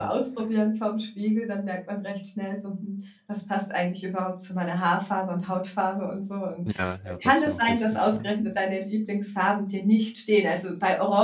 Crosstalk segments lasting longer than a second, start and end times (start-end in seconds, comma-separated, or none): 7.1-8.3